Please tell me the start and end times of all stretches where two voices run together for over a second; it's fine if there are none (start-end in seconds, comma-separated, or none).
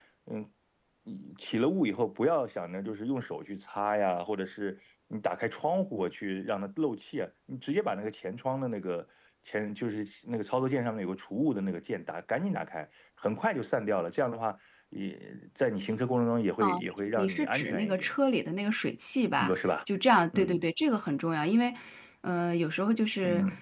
16.6-18.1